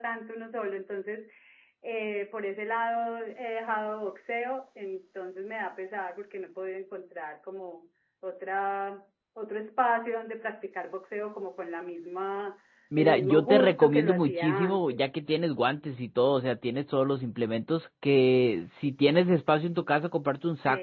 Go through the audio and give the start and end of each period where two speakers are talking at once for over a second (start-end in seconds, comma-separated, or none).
13.0-15.0